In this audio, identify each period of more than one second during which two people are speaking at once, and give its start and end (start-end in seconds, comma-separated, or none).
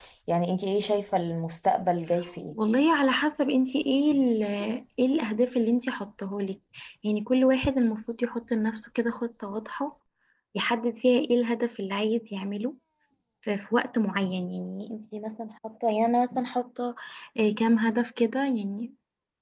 none